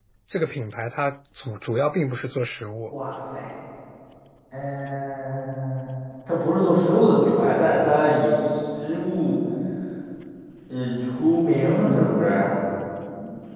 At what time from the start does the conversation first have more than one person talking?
none

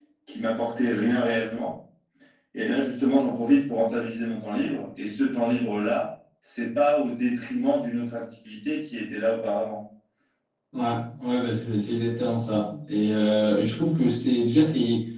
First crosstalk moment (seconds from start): none

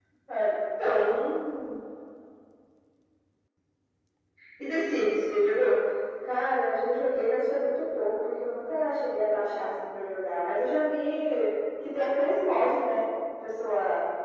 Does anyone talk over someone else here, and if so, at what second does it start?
none

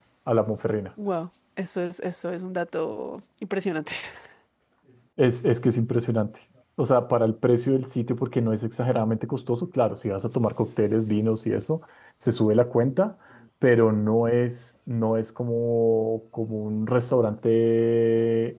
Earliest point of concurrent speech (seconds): none

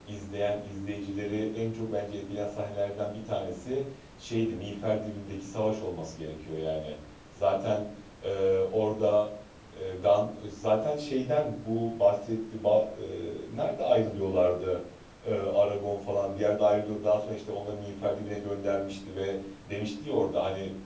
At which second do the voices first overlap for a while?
none

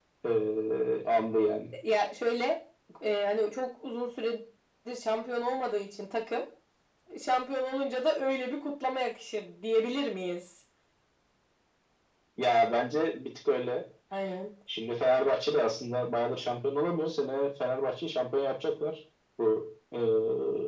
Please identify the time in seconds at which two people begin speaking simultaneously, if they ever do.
none

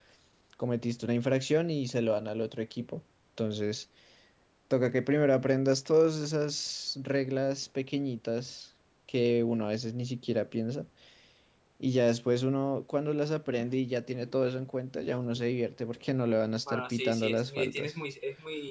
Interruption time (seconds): 16.7 s

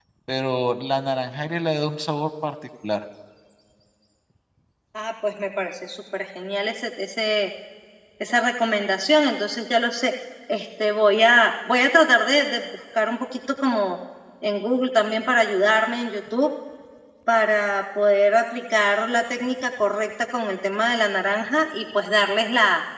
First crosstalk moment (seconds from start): none

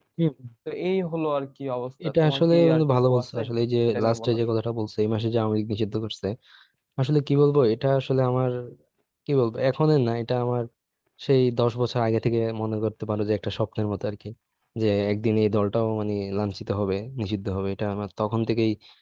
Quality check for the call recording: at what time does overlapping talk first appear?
2.1 s

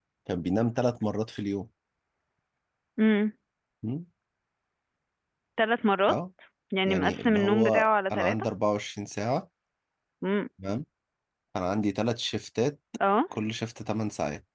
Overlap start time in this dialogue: 6.9 s

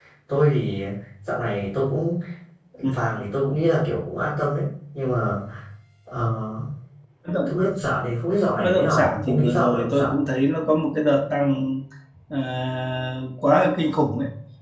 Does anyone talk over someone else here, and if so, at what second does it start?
8.6 s

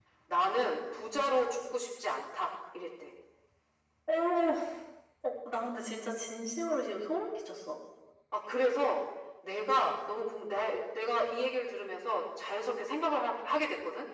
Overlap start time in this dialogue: none

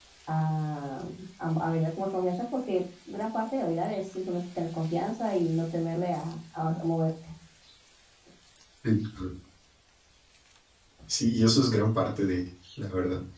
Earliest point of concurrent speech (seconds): none

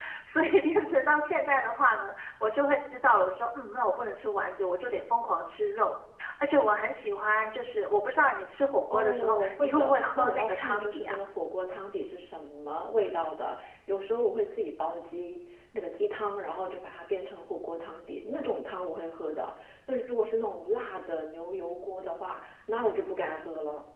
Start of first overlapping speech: 8.9 s

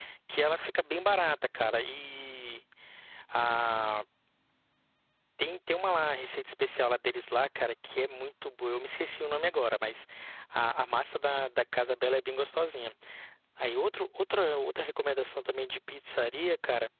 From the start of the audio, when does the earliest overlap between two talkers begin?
none

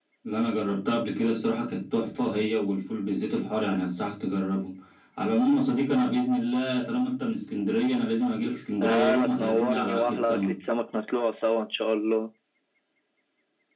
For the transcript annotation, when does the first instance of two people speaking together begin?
8.8 s

